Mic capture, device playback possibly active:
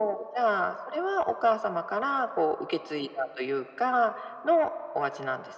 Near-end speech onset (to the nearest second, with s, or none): none